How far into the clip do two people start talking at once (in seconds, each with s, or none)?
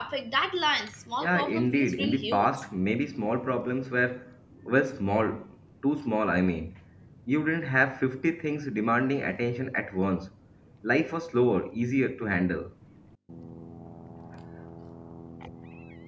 1.2 s